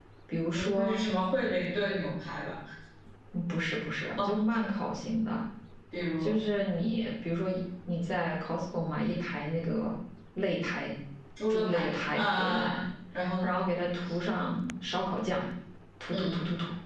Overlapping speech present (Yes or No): Yes